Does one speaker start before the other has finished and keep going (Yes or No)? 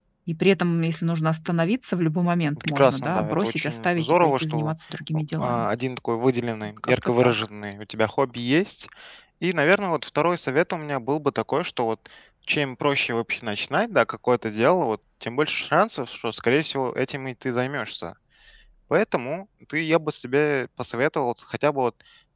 Yes